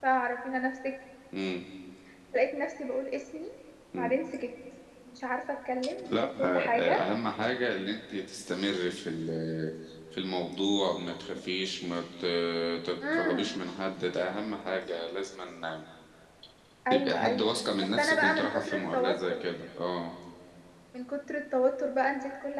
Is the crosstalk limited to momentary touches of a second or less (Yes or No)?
No